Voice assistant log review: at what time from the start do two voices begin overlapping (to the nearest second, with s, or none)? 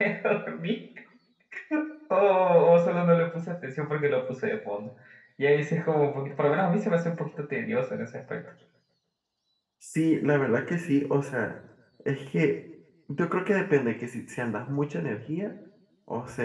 none